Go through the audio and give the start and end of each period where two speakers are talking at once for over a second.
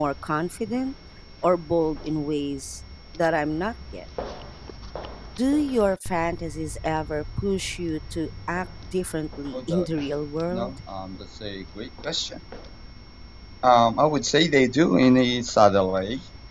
none

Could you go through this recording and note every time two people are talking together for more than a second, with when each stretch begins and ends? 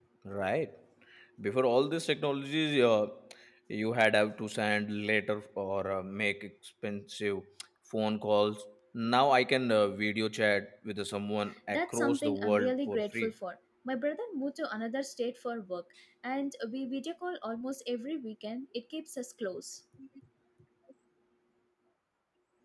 11.7-13.3

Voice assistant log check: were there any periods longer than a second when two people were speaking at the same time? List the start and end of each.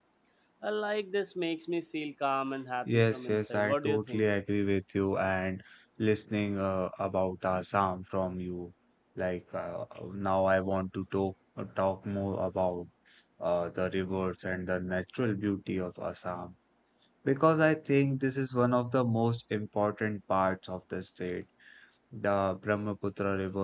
2.9-4.3

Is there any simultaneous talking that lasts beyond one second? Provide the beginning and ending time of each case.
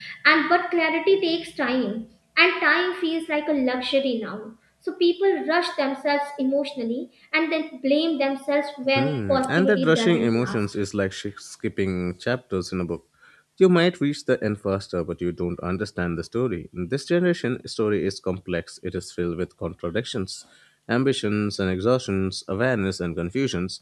8.9-10.6

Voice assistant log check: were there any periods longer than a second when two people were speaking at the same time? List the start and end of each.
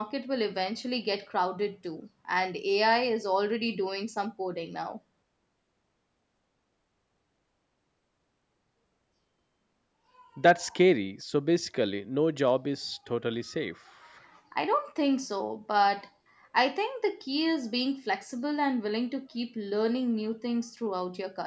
none

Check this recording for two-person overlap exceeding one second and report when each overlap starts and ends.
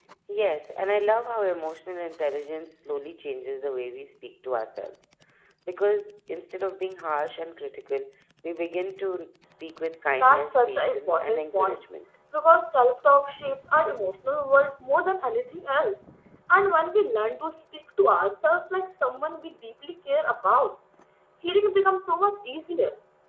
10.1-11.8

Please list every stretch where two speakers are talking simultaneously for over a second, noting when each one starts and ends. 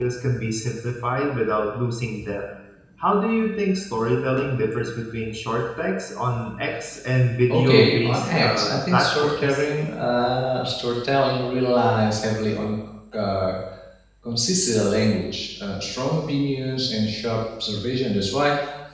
7.5-9.7

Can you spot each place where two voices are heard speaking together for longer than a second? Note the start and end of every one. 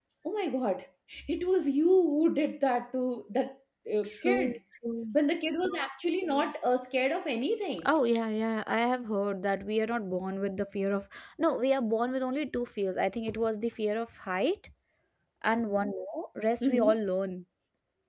none

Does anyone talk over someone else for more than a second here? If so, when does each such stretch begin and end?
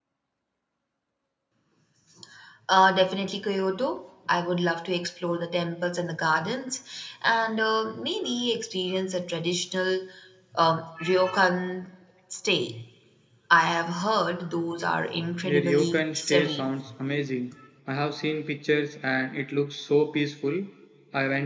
15.4-16.7

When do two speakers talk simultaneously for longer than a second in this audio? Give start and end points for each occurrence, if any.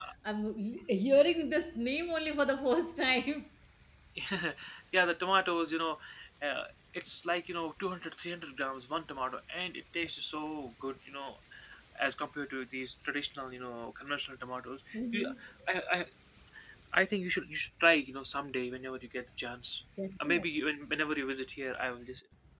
none

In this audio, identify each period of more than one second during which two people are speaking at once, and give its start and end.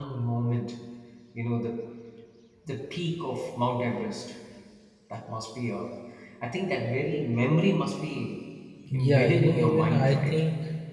8.9-10.4

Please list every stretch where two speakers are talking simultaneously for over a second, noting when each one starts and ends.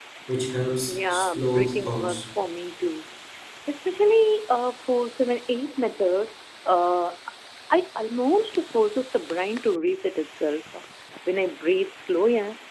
0.9-2.2

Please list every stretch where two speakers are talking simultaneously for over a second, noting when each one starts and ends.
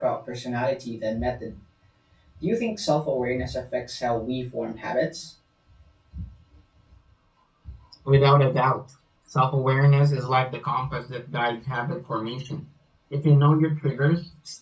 none

